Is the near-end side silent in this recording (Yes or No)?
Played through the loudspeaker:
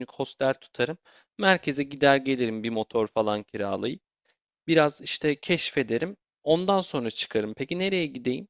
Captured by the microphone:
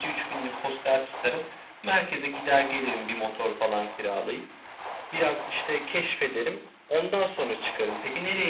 Yes